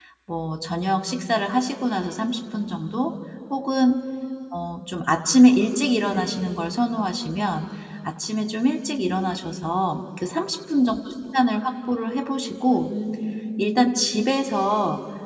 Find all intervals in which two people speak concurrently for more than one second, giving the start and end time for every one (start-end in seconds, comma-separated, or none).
none